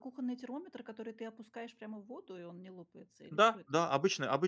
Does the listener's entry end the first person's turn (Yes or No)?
Yes